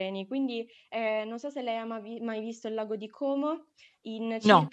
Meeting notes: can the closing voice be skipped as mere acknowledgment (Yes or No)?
Yes